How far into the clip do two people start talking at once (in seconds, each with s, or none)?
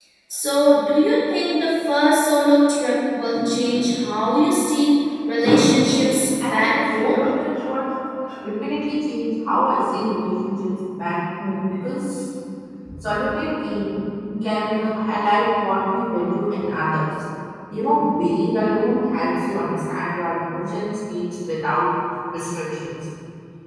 5.6 s